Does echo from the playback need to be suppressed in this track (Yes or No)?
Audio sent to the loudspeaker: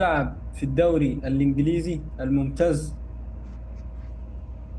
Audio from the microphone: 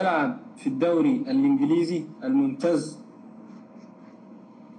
Yes